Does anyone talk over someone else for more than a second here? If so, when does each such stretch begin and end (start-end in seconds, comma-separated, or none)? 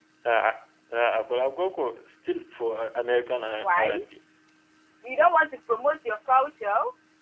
none